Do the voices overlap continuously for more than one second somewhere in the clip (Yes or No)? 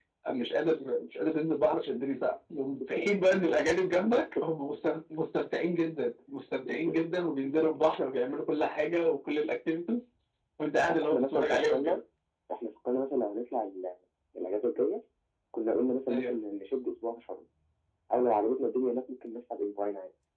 Yes